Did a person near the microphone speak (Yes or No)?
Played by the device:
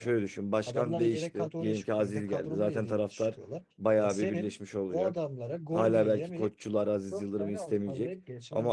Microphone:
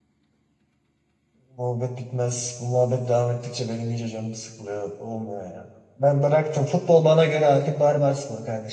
Yes